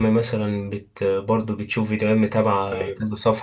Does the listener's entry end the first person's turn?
No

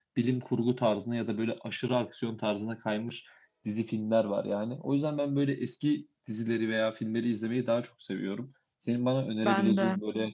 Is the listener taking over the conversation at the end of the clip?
No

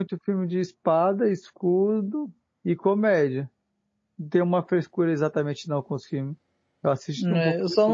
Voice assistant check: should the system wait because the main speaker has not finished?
No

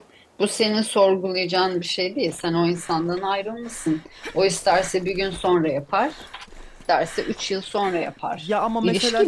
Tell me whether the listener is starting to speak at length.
Yes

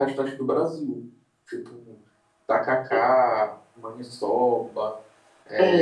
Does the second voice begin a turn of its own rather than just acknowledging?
Yes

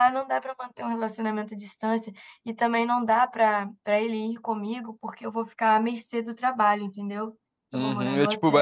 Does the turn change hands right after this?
Yes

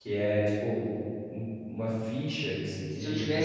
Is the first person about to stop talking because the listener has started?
Yes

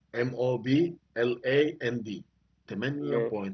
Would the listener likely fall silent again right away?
Yes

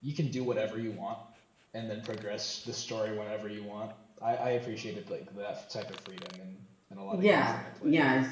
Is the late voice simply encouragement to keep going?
No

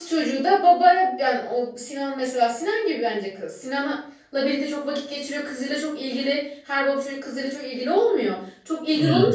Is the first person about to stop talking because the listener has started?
No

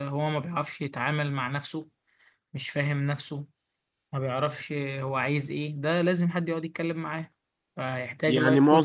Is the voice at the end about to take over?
Yes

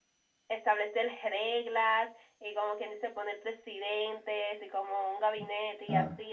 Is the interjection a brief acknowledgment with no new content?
Yes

